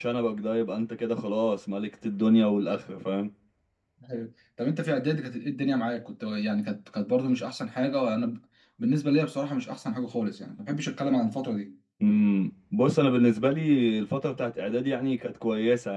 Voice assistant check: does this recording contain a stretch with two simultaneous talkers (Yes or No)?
No